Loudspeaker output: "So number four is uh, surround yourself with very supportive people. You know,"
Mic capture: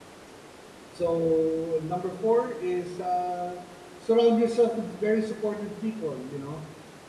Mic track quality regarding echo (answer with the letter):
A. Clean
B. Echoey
B